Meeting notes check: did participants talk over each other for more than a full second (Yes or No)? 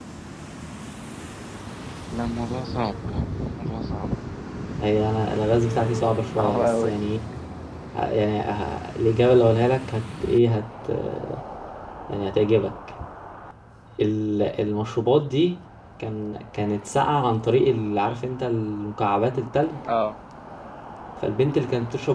No